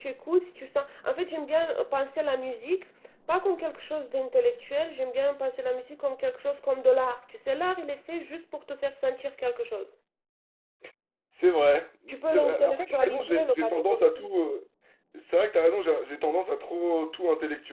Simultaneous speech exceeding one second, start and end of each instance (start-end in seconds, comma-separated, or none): 12.3-14.2